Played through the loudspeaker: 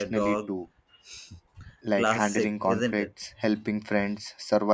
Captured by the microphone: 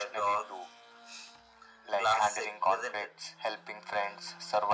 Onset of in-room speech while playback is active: none

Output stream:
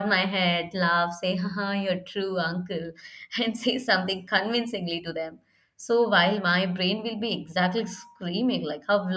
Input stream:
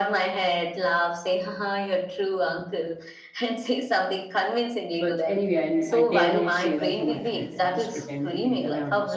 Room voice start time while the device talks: 4.9 s

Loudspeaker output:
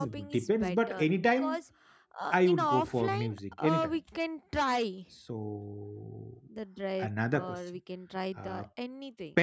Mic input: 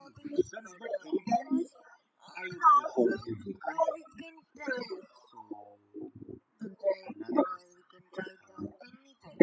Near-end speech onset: none

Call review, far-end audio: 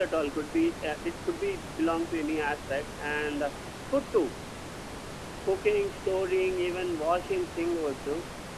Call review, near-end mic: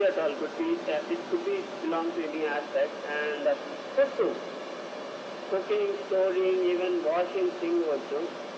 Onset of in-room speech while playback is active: none

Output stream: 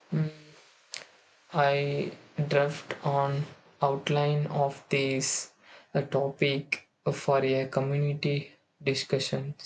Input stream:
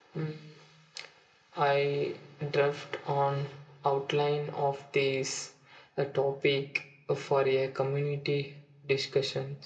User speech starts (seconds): none

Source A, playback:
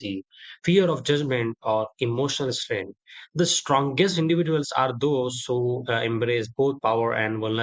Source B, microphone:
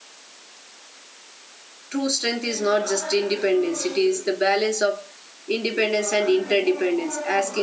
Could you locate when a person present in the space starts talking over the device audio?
1.9 s

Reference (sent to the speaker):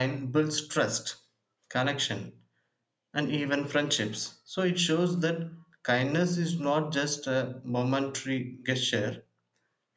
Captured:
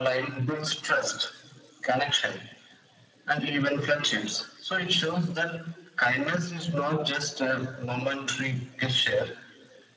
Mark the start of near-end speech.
none

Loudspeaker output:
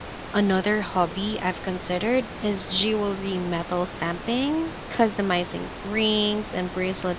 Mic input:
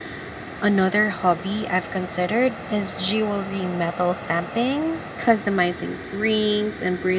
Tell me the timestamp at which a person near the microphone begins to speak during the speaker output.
none

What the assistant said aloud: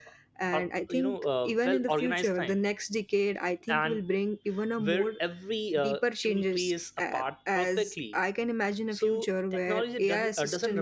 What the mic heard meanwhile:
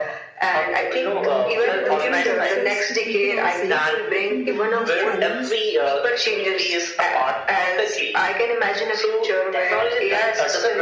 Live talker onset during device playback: 1.0 s

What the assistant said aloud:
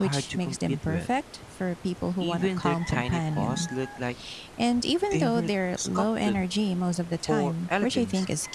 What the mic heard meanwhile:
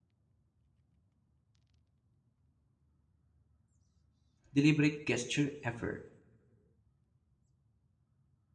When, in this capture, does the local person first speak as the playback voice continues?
4.5 s

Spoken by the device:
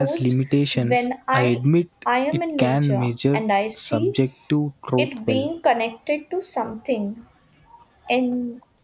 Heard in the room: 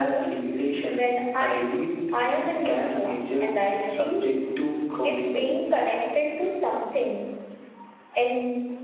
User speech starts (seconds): none

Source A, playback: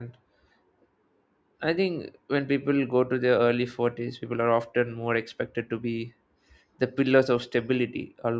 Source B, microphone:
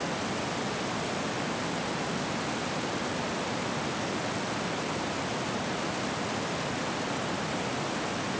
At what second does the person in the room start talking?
none

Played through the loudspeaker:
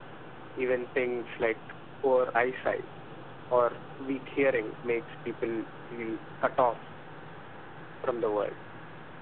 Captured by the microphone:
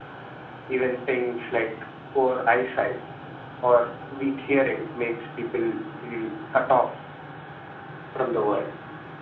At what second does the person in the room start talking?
none

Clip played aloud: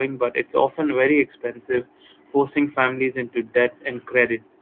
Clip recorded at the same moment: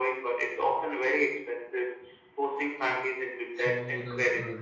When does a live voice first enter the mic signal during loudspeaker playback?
3.5 s

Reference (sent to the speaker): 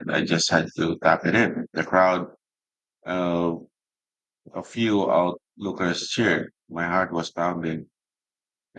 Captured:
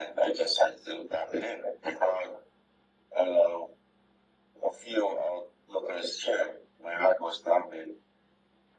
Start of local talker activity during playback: none

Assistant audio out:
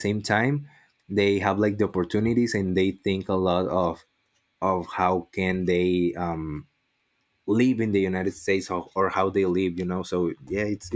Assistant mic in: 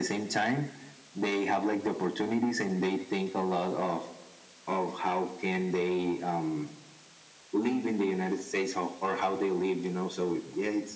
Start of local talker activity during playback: none

